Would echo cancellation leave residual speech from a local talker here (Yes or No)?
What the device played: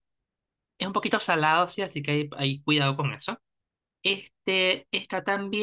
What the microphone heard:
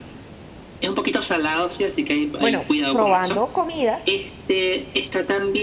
Yes